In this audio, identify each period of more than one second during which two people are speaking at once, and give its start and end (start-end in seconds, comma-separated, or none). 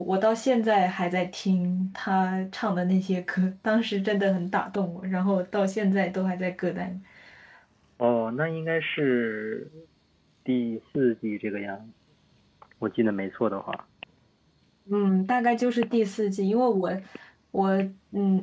none